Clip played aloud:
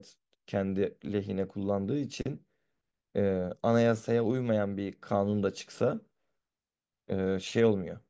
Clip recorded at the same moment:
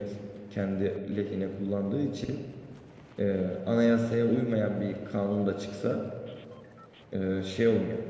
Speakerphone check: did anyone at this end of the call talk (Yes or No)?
No